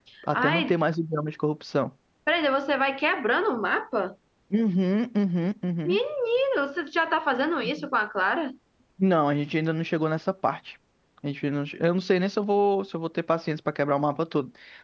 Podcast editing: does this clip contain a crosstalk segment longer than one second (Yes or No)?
No